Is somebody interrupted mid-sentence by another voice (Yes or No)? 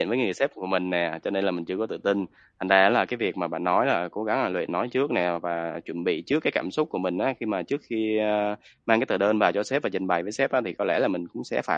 No